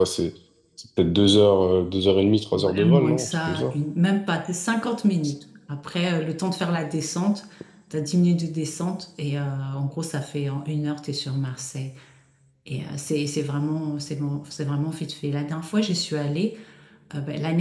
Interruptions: present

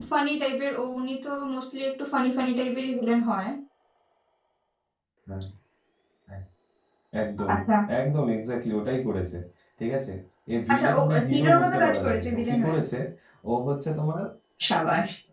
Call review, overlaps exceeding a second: present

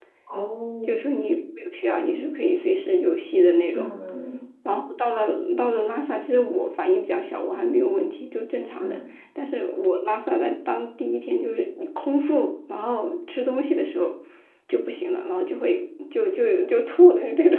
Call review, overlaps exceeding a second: none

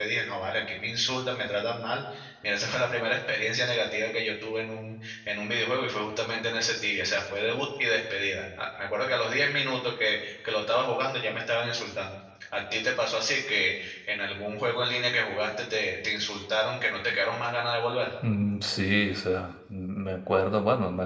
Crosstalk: none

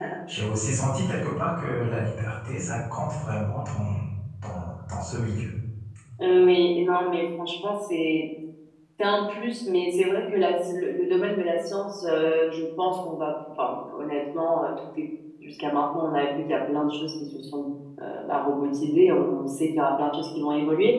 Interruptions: none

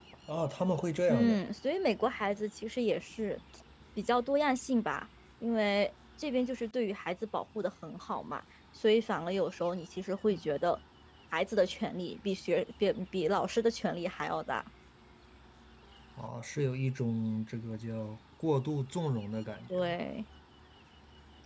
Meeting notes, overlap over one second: none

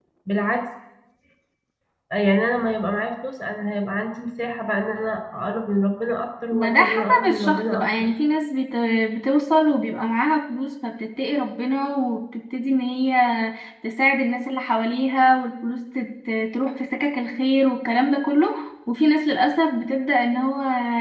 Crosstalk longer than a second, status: present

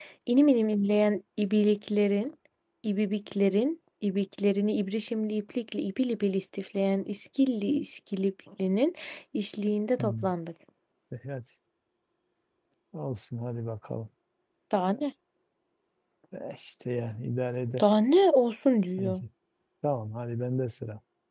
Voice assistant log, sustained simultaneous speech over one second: none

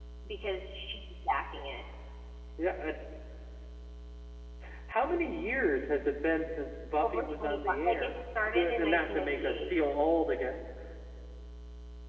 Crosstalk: present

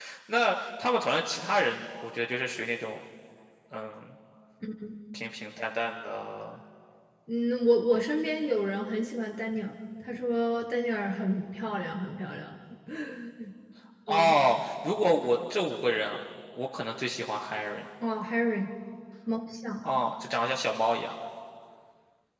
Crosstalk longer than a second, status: none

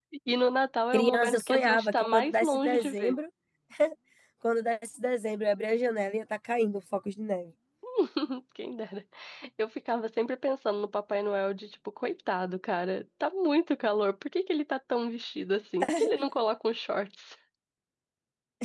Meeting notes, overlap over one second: present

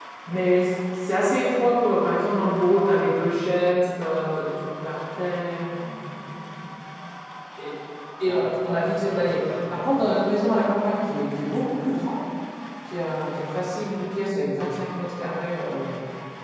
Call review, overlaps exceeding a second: present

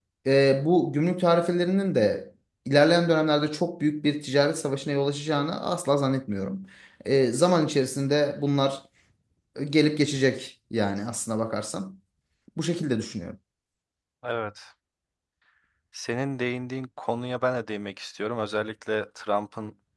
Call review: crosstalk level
none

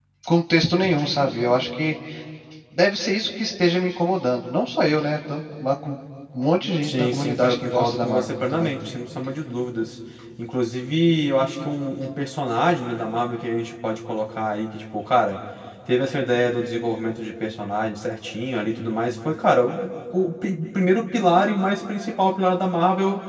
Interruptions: present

